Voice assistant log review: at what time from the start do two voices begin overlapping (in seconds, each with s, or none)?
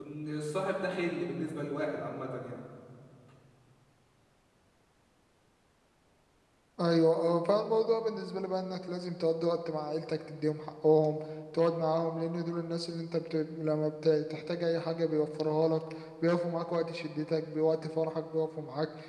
none